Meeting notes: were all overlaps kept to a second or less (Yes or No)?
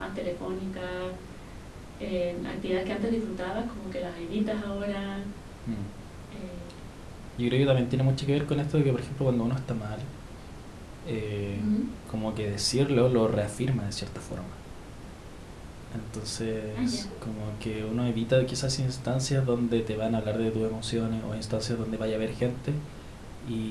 Yes